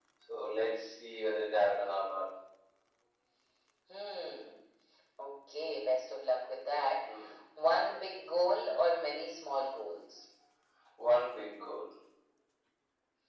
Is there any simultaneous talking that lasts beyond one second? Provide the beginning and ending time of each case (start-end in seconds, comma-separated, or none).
none